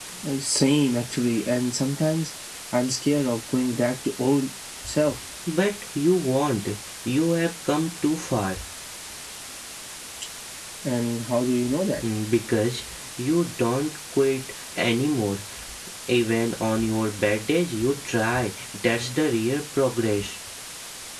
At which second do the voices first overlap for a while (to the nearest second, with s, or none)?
none